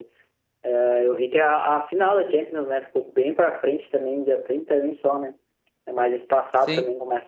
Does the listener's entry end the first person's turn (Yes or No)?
No